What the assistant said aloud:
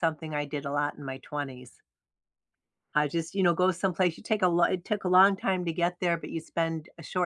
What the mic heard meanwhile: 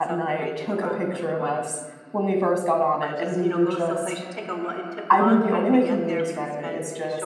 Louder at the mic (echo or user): user